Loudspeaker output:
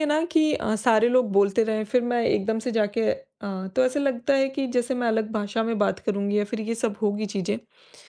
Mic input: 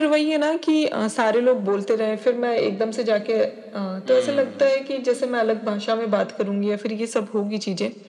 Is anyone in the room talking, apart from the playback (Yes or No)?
Yes